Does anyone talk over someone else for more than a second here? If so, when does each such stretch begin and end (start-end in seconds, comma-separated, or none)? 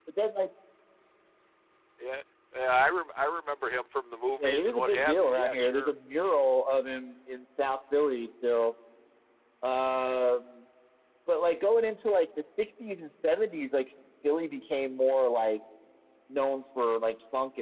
4.4-5.9